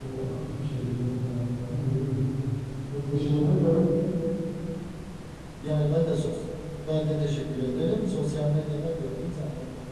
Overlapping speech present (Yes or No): No